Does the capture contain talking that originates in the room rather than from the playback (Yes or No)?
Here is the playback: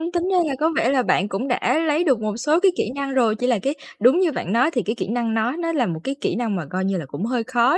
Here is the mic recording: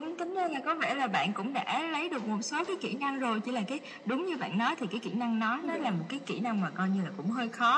Yes